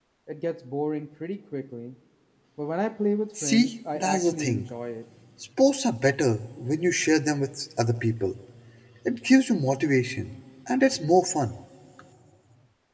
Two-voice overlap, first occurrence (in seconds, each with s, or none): 3.4 s